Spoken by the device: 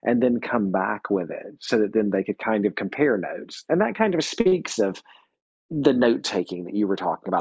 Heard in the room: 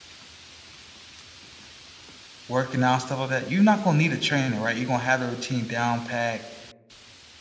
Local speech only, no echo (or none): working out stuff like that, you're not gonna need a trainer, right? You're gonna have a routine down pat,